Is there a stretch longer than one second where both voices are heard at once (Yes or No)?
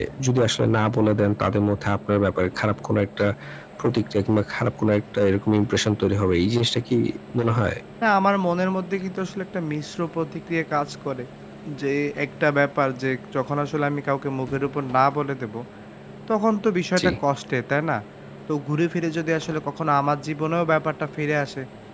No